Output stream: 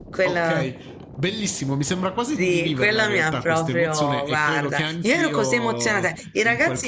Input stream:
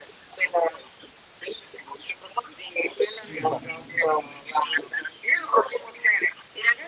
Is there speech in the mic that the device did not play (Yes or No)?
Yes